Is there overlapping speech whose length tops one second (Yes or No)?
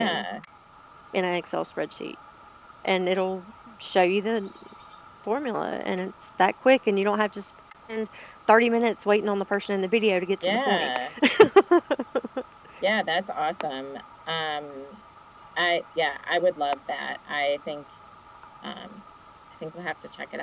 No